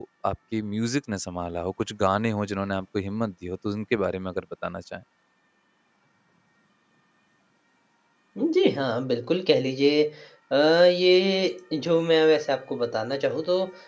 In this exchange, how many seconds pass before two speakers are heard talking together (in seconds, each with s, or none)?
none